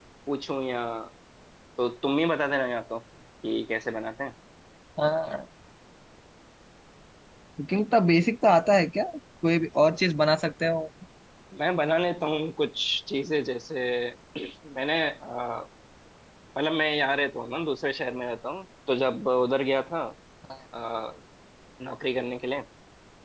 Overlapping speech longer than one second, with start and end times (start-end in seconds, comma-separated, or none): none